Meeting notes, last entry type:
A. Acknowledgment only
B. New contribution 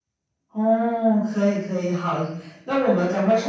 A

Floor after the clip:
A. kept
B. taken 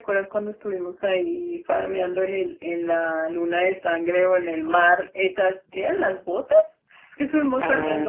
A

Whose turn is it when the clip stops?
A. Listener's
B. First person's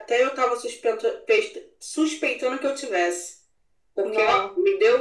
B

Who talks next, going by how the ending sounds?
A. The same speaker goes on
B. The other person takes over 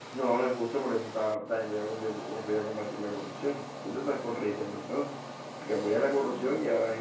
A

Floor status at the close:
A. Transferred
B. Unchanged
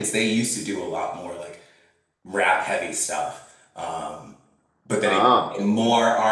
B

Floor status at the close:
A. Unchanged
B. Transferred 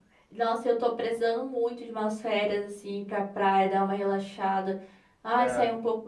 A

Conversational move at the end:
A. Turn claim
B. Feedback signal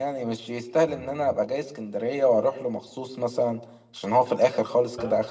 A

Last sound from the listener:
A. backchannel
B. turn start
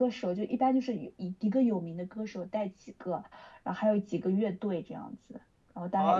B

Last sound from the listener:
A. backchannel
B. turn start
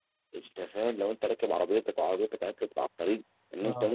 A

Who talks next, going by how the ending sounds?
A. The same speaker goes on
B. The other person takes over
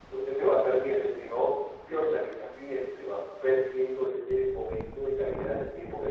A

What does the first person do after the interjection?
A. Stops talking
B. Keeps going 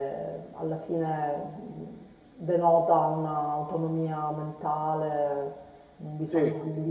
B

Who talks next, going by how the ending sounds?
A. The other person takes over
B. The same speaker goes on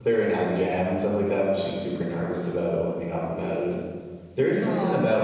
B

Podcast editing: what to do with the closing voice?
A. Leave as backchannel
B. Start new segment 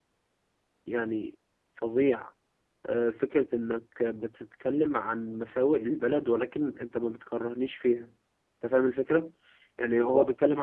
A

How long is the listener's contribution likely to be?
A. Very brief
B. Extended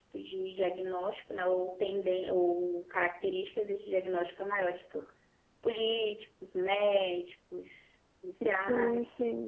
B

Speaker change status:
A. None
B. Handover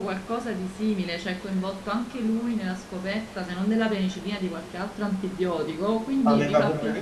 B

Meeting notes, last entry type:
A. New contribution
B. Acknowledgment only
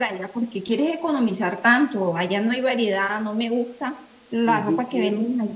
A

